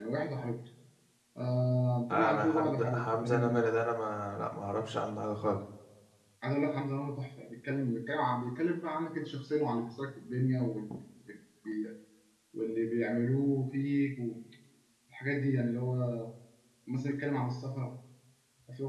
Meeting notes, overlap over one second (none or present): present